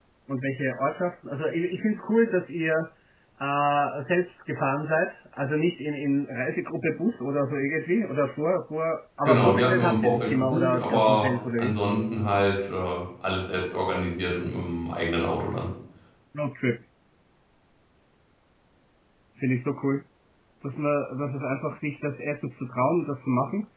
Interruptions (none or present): present